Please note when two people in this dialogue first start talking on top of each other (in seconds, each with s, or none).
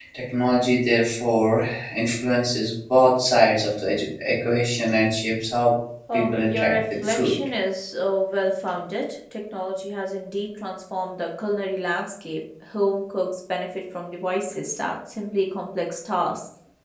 6.1 s